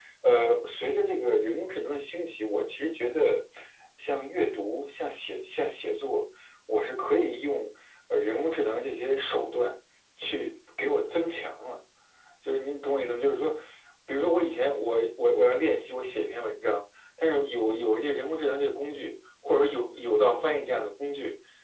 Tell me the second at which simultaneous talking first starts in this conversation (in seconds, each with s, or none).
none